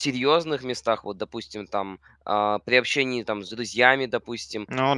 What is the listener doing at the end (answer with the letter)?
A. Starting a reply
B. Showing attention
B